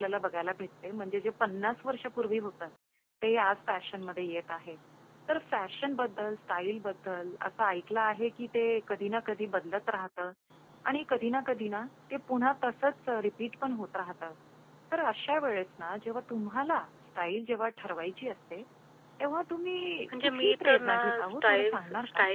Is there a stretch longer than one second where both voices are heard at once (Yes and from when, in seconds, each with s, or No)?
Yes, from 20.1 s